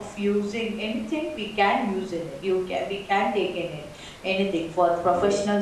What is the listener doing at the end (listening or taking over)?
listening